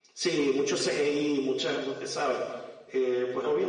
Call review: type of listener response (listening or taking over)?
listening